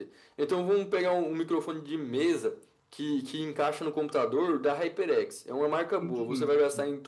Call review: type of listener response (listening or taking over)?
listening